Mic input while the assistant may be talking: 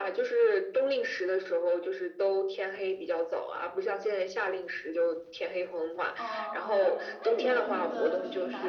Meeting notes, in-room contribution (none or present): present